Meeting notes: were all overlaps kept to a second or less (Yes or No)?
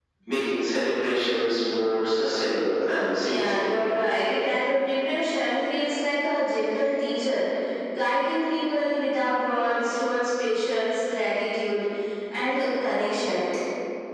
Yes